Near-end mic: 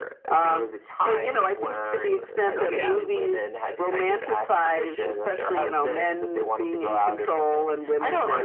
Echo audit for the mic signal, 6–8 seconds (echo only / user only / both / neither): echo only